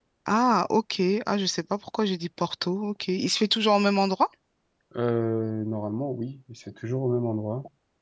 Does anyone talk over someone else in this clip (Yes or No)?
No